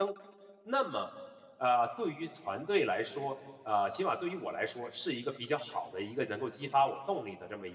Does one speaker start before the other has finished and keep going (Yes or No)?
No